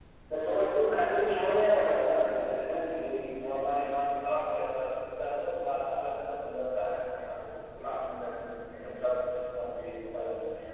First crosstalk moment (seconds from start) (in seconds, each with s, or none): none